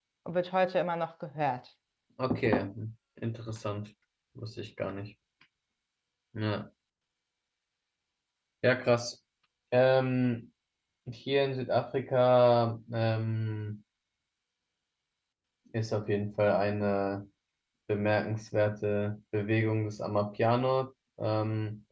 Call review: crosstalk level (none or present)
none